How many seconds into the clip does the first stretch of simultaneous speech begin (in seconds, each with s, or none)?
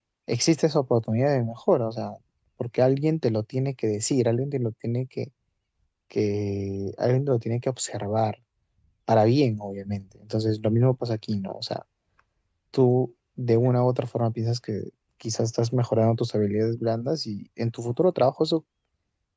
none